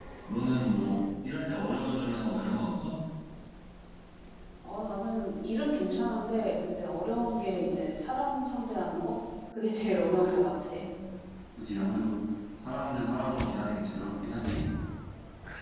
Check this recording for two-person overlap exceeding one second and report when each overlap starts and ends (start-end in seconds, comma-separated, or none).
none